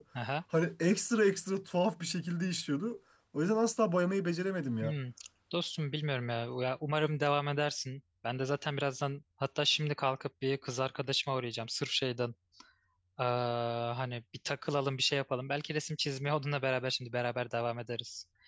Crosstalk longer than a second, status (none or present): none